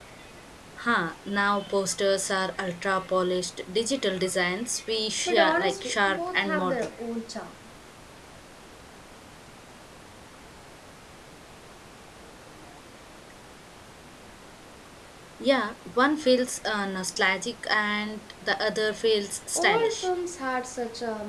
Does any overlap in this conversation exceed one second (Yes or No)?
Yes